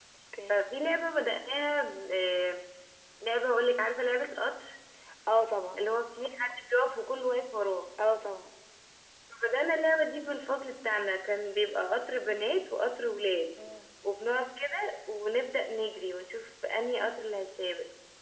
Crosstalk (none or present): none